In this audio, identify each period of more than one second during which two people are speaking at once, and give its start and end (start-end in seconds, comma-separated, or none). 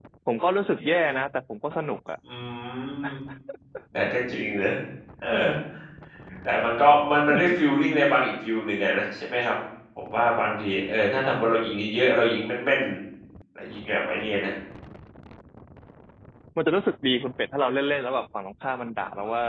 none